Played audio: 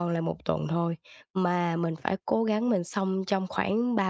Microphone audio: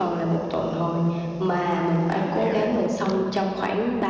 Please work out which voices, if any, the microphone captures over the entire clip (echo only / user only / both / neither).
both